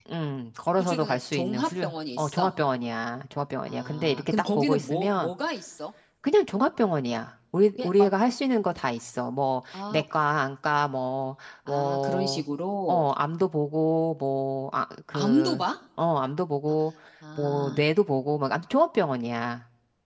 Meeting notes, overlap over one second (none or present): present